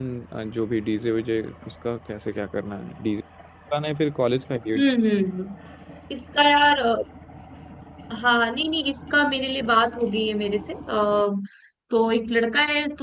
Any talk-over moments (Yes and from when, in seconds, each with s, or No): No